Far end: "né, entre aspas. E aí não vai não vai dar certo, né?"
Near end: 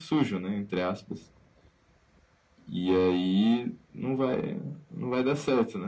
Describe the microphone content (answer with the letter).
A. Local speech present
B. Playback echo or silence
B